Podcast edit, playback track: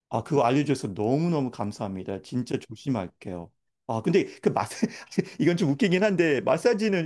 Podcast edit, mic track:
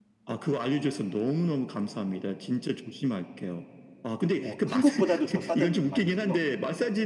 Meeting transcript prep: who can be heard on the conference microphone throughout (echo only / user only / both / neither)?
both